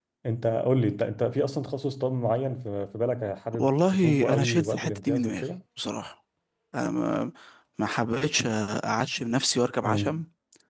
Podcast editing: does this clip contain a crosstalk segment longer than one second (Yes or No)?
Yes